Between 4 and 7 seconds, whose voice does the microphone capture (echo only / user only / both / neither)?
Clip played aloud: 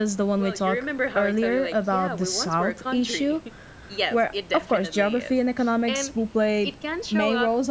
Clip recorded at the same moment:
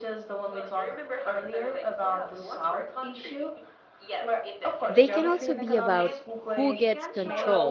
both